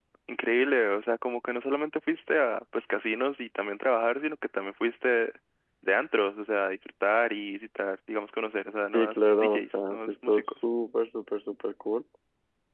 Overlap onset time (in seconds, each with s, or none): 8.9 s